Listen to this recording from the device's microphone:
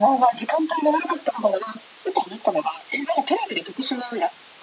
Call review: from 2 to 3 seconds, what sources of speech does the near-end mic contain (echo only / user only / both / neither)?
echo only